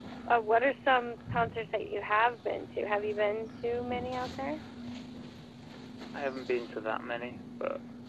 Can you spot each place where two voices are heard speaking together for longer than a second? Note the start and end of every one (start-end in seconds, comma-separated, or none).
none